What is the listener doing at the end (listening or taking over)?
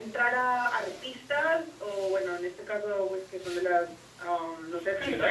taking over